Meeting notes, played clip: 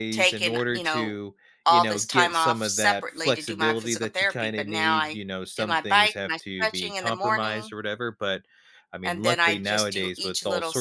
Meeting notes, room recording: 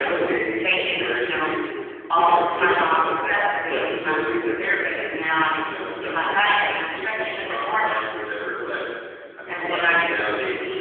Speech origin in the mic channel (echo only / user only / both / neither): echo only